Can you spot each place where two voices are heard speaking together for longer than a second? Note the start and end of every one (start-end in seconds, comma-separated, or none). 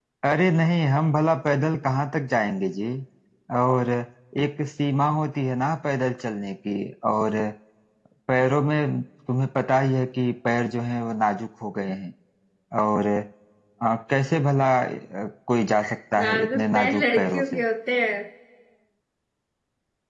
16.2-17.6